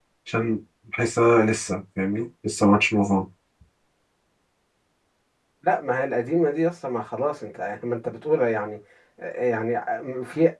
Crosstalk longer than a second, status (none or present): none